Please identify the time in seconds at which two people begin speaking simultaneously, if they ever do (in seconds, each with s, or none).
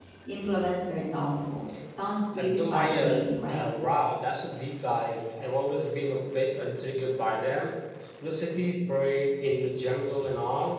2.4 s